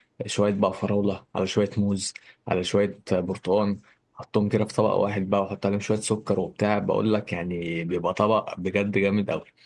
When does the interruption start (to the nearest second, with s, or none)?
none